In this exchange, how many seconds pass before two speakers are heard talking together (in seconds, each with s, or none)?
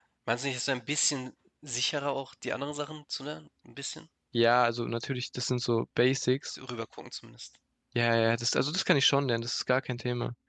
none